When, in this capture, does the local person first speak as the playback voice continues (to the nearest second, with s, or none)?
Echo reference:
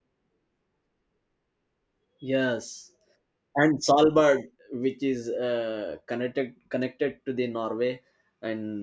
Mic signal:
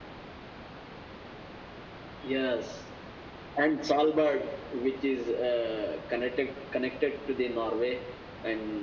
none